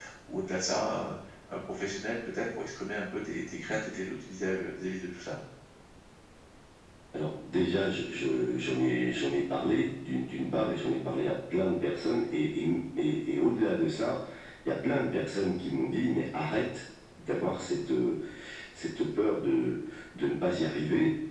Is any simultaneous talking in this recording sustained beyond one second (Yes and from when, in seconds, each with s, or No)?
No